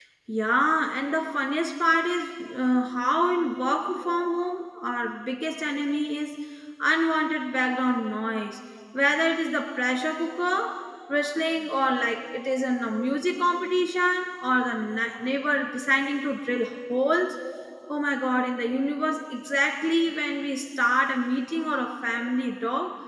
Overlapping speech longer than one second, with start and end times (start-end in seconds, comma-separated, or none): none